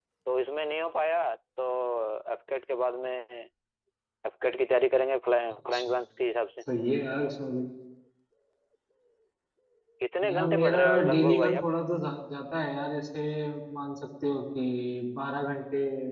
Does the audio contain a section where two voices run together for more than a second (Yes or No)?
Yes